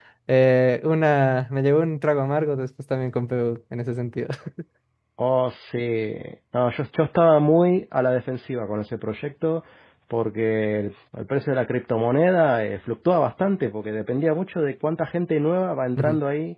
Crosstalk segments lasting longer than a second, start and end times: none

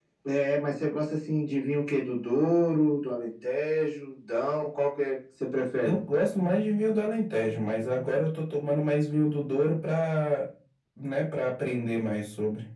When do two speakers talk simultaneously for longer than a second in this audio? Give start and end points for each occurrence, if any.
none

